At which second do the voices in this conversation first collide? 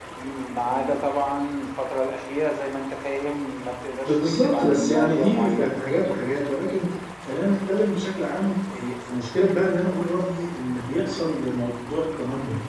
4.0 s

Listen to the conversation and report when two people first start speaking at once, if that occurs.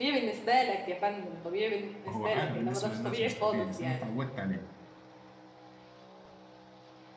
2.1 s

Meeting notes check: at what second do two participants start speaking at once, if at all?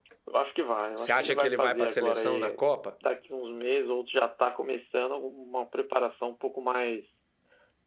1.0 s

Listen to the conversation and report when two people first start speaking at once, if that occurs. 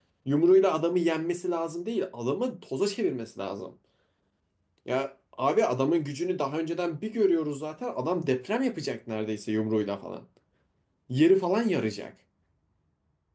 none

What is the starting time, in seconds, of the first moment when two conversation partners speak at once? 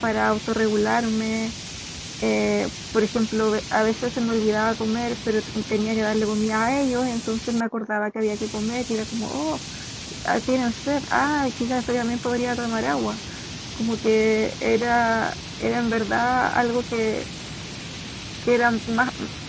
none

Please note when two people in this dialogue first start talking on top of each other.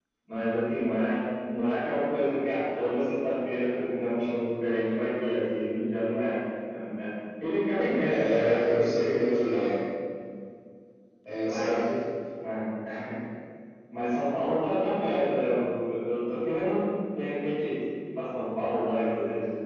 8.1 s

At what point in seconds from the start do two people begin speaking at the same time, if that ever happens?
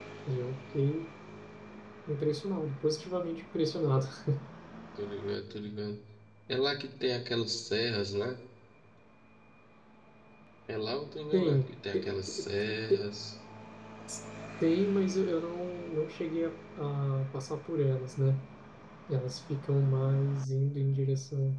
11.3 s

